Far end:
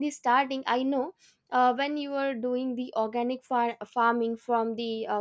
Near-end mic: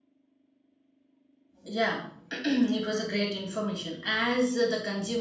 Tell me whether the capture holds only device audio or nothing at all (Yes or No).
No